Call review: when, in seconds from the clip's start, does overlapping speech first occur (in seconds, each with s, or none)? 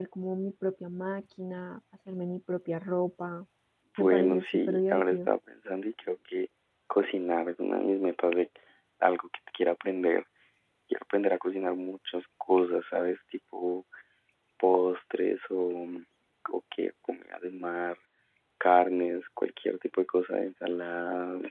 4.0 s